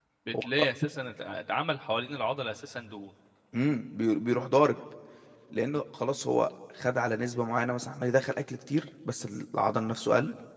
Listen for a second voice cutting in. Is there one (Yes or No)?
No